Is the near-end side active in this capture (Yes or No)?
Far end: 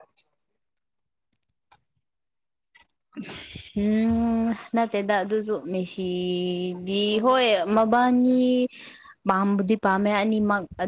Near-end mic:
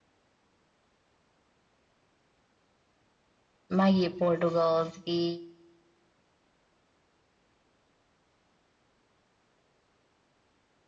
Yes